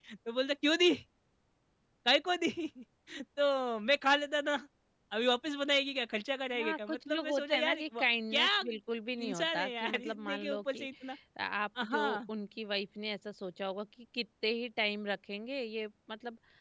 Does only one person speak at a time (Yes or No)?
No